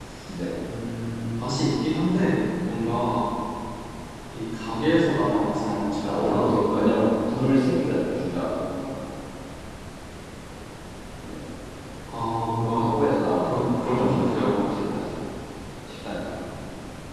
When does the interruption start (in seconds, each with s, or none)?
5.2 s